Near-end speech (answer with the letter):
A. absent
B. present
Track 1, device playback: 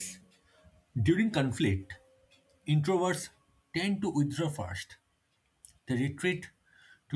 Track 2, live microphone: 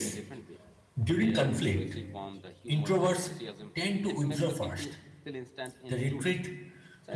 B